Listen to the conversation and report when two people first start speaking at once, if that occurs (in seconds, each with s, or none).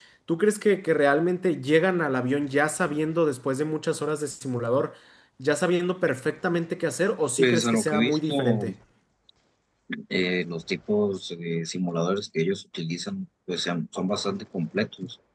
7.4 s